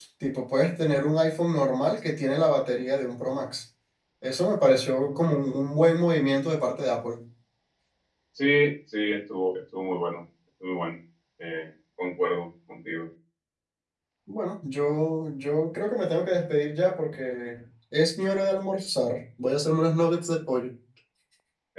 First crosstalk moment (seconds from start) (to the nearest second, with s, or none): none